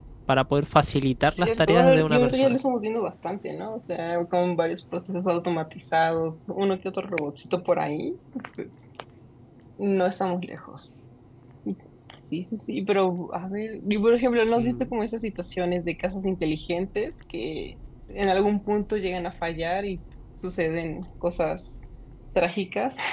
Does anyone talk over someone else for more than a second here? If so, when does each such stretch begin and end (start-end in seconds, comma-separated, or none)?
1.2-2.6